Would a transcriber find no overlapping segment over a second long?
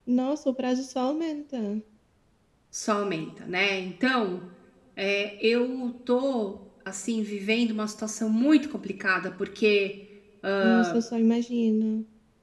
Yes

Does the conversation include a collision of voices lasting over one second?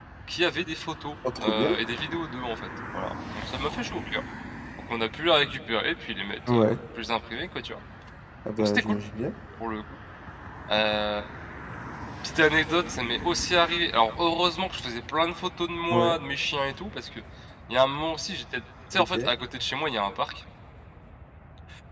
No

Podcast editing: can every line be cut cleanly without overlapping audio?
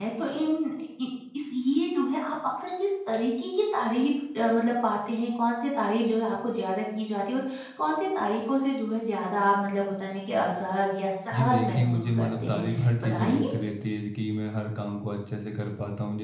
No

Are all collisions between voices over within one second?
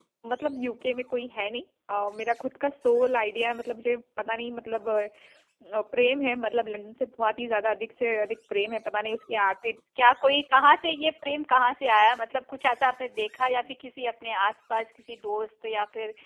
Yes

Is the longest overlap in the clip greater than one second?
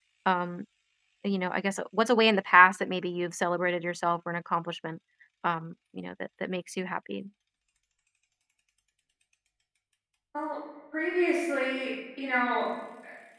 No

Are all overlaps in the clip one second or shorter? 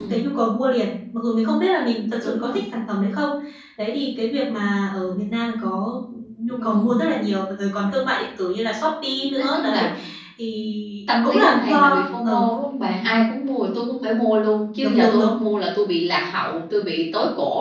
No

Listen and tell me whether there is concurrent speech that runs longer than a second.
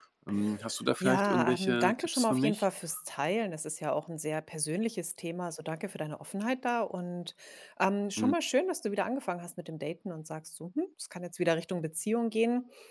Yes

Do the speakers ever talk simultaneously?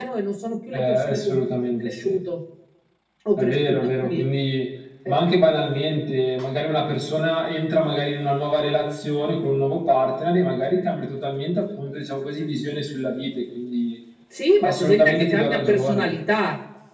Yes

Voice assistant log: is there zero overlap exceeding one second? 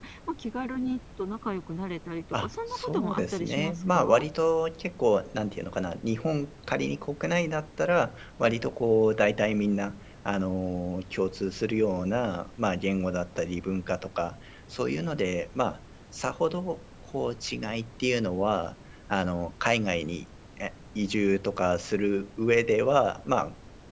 No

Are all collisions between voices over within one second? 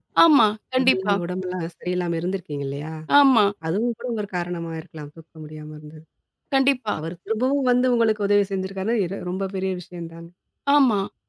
Yes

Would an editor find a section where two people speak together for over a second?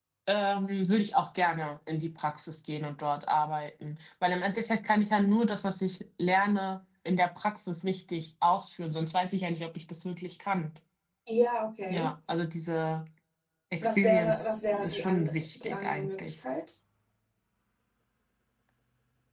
Yes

